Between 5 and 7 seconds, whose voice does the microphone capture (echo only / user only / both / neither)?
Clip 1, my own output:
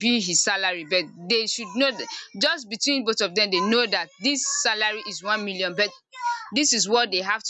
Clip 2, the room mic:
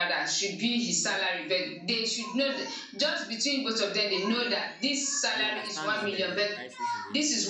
both